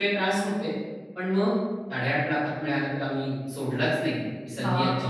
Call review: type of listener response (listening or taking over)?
taking over